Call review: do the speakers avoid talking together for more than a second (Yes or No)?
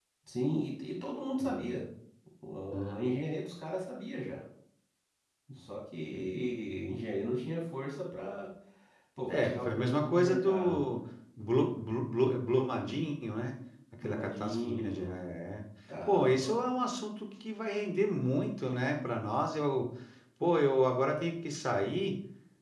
No